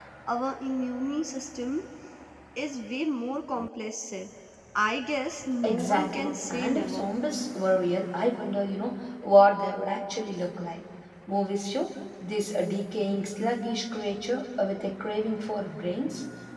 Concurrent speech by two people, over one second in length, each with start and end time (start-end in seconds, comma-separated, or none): 5.6-7.1